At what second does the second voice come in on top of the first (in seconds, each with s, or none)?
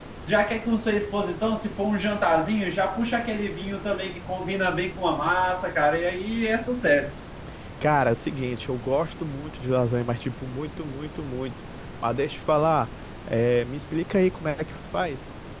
none